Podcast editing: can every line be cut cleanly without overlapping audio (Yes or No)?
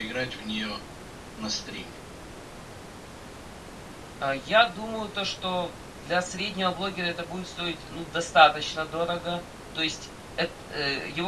Yes